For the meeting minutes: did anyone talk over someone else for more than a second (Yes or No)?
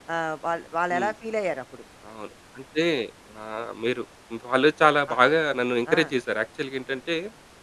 No